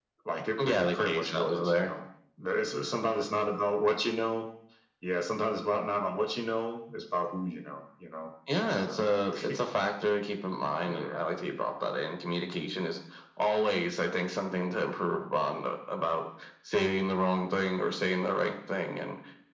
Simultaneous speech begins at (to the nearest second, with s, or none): 1 s